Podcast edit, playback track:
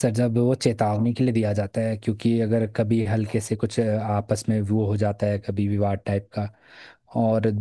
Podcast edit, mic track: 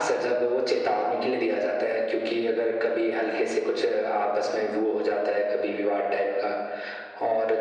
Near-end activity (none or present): none